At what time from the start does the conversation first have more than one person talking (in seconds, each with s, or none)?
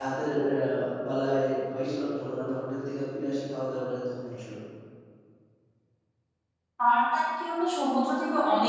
none